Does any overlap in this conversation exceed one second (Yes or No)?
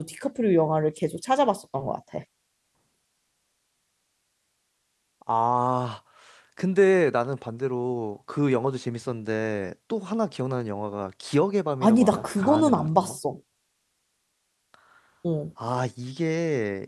Yes